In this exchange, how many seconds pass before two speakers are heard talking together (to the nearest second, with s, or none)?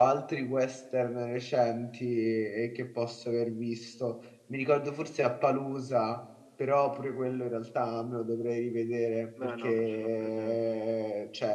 9 s